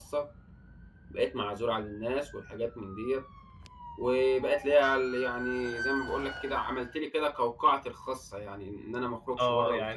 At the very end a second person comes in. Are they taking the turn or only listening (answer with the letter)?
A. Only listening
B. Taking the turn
B